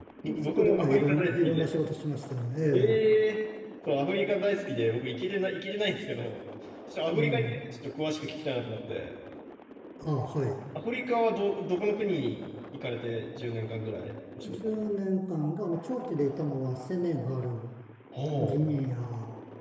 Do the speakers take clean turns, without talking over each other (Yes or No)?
No